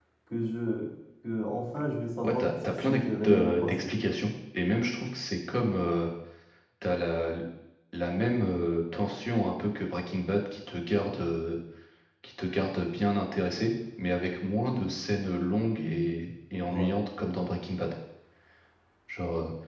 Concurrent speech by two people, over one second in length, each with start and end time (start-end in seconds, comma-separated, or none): 2.2-3.9